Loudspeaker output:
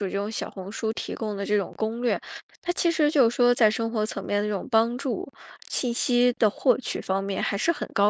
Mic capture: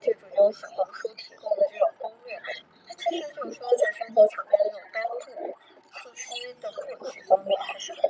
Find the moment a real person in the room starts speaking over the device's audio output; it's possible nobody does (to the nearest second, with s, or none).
none